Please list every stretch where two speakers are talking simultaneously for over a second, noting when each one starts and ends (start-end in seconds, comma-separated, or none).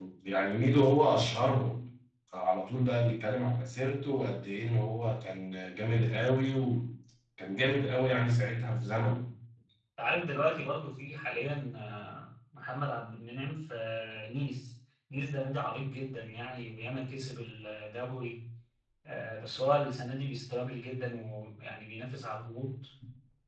none